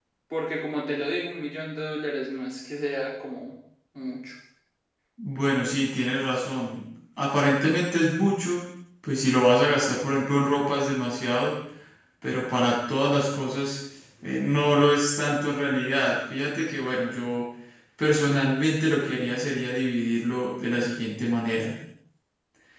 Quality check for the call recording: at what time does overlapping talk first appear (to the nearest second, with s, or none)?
none